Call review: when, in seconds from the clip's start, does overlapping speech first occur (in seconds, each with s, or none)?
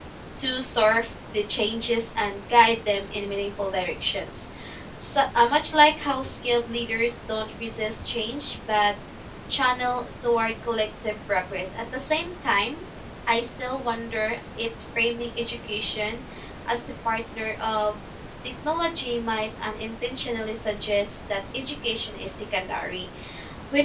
none